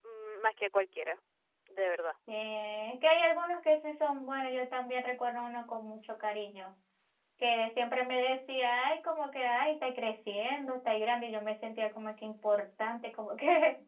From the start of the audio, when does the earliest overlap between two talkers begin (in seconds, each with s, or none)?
none